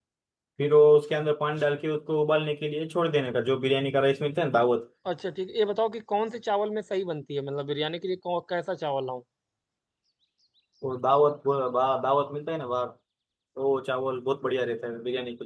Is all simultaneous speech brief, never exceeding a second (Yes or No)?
Yes